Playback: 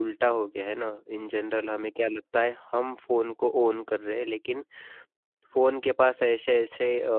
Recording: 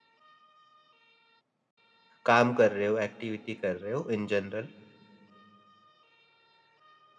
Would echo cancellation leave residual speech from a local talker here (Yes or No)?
Yes